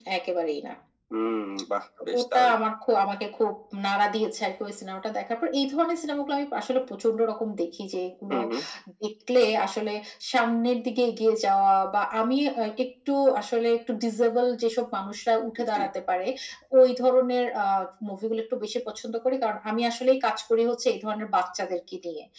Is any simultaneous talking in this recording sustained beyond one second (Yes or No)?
No